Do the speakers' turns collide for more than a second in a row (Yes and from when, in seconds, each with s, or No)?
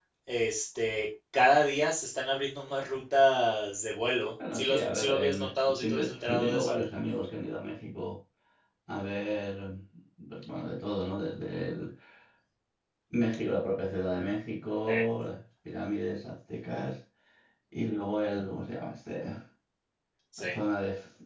Yes, from 4.4 s